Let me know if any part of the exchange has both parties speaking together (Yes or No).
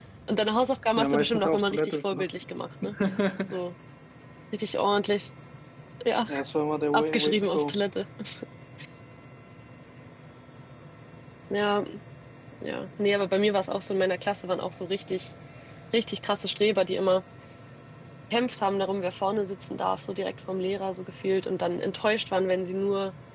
Yes